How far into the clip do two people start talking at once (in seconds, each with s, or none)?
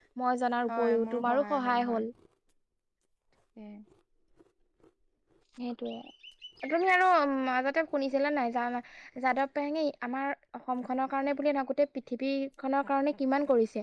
0.7 s